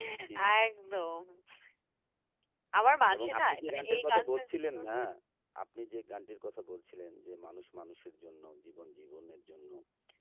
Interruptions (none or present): present